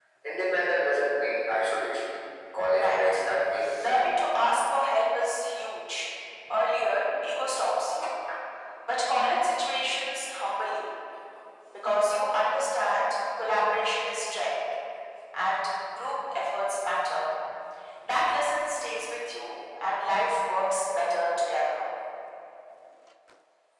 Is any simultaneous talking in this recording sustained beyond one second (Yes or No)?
No